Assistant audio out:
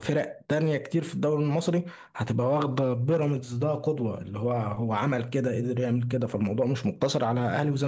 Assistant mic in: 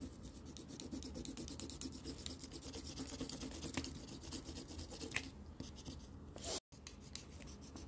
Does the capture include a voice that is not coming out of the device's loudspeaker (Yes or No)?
No